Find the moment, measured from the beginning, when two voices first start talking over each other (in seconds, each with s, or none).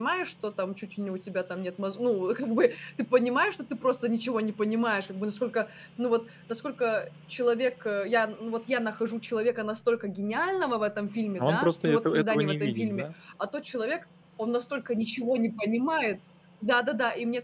11.4 s